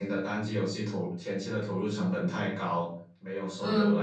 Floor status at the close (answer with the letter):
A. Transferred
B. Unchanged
B